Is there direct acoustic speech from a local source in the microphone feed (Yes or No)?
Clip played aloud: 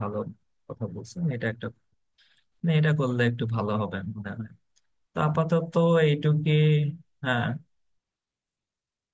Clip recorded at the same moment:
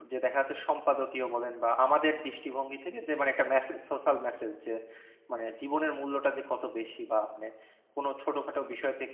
Yes